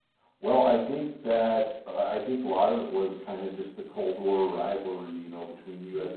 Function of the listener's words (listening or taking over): listening